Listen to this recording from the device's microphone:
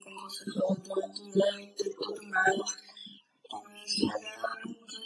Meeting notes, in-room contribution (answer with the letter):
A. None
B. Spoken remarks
A